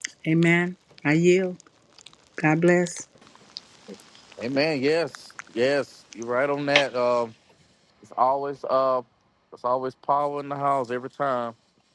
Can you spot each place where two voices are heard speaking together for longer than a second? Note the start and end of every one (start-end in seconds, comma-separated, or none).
none